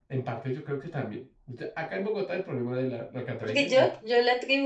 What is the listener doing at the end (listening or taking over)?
taking over